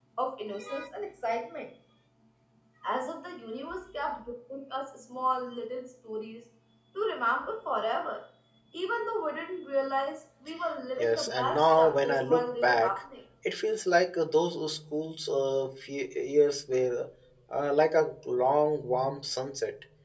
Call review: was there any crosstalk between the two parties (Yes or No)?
Yes